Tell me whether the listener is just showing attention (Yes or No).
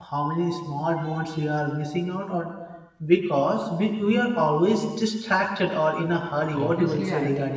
No